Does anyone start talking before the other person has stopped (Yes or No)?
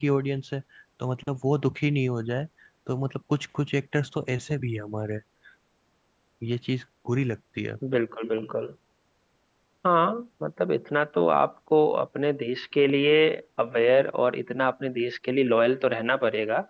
No